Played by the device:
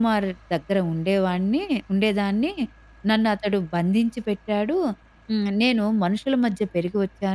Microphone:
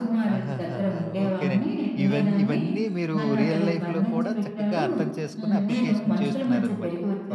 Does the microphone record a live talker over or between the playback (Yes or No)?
Yes